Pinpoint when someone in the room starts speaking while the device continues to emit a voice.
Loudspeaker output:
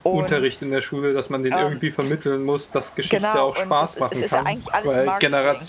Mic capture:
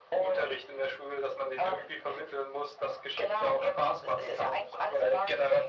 none

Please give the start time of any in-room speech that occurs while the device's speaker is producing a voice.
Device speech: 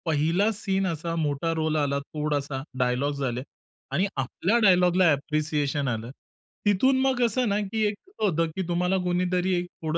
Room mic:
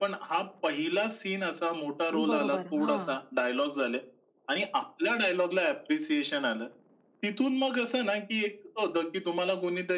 2.1 s

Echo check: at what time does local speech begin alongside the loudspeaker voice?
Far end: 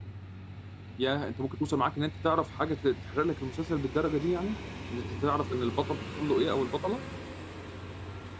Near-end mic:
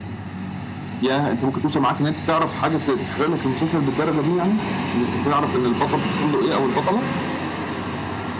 none

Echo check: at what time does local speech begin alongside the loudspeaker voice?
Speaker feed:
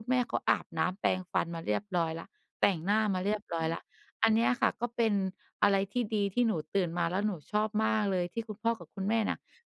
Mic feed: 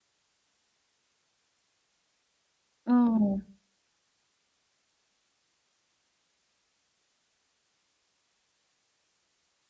2.9 s

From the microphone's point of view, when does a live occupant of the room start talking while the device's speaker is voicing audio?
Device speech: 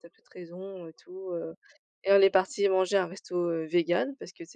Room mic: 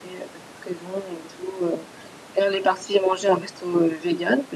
none

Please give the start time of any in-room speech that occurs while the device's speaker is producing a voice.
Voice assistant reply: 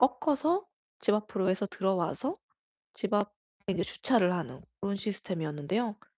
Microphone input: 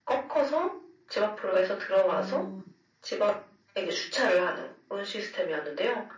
2.0 s

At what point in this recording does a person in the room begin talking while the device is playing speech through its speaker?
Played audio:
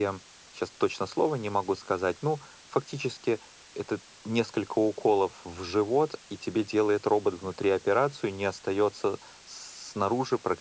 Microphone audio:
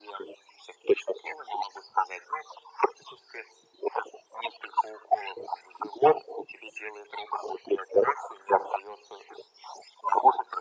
none

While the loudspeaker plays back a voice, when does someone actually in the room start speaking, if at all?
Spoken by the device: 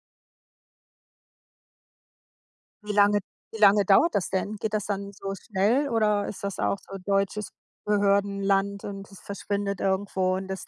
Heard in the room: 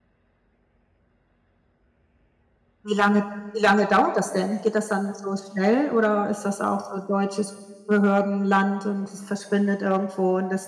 none

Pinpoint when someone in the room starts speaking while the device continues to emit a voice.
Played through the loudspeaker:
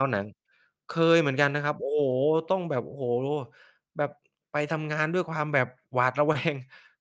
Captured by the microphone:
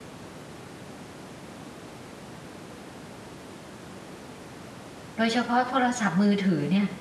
5.2 s

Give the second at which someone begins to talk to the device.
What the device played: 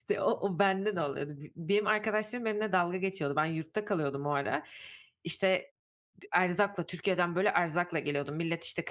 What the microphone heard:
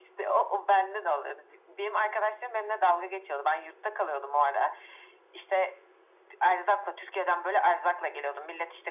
none

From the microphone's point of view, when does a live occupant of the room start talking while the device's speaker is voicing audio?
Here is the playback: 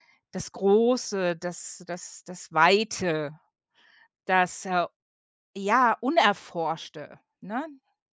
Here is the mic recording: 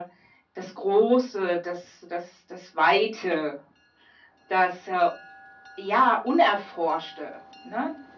none

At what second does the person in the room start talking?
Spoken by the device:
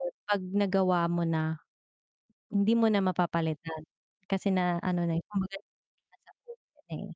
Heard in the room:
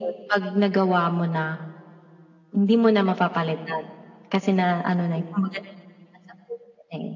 none

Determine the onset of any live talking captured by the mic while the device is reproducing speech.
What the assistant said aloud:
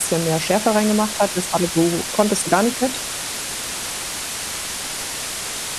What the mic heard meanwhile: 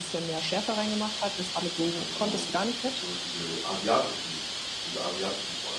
1.9 s

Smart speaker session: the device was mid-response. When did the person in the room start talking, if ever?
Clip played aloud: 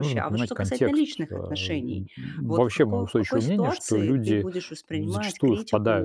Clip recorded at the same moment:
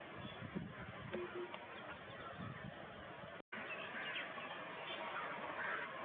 none

